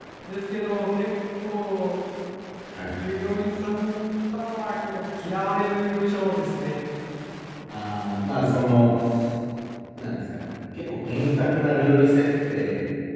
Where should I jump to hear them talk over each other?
none

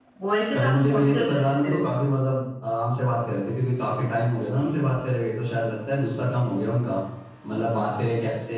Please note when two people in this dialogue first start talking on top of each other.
0.5 s

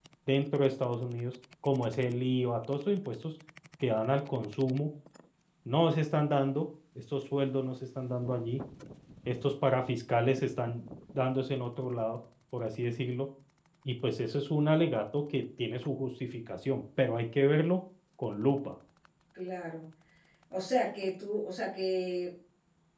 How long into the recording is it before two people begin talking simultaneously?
none

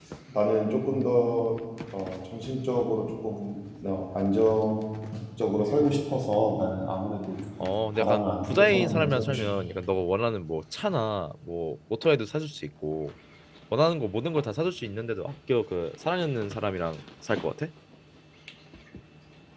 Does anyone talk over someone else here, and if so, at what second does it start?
7.6 s

